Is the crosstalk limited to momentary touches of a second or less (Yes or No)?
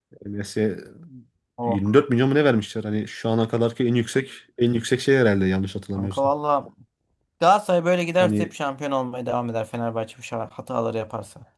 Yes